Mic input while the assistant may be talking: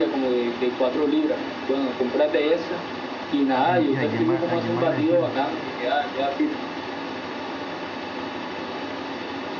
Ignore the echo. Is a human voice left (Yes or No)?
Yes